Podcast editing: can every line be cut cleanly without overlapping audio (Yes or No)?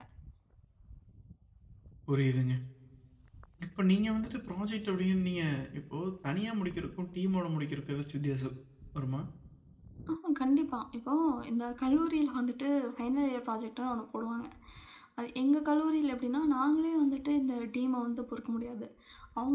Yes